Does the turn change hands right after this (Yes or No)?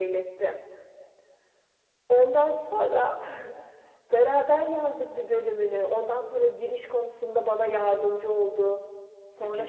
Yes